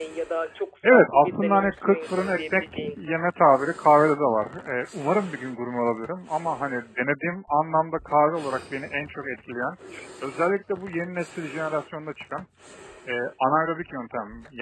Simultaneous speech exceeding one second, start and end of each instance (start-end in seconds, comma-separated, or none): 0.9-3.0